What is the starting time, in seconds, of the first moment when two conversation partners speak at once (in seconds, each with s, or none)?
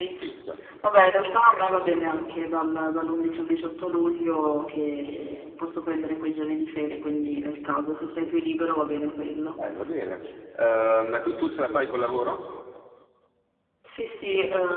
none